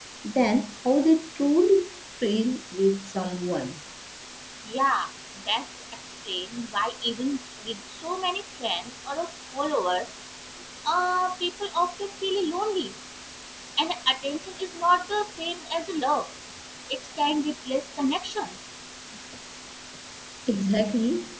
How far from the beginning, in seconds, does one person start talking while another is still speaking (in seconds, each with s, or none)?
none